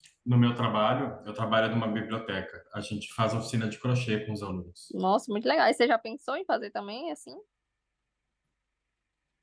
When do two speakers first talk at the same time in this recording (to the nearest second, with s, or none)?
none